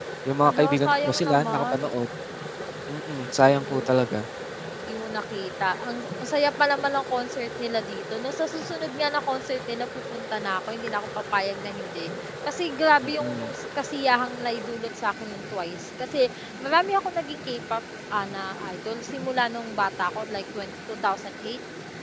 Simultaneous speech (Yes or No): Yes